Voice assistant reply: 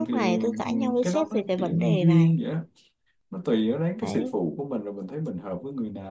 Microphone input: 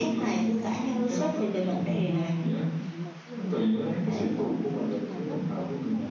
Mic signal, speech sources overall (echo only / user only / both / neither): both